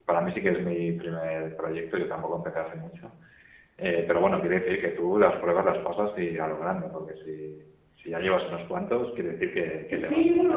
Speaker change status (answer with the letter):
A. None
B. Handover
B